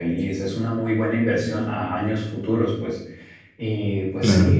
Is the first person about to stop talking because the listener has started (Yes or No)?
No